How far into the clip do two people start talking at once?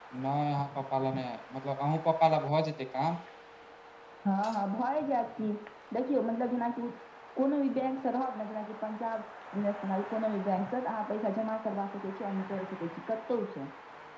none

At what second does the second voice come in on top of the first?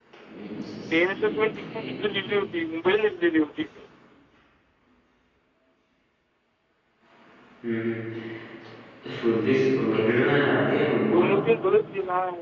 0.9 s

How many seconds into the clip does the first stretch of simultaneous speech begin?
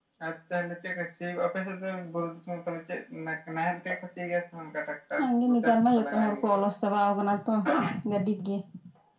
5.2 s

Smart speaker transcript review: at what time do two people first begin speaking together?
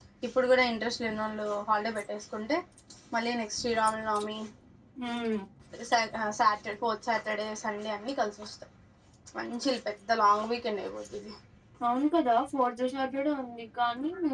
none

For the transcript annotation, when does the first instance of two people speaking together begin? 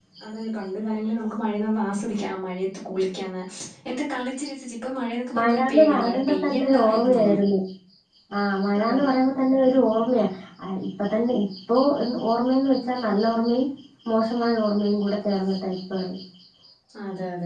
5.3 s

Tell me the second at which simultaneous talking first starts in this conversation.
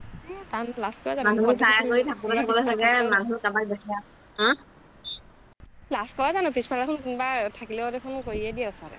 1.2 s

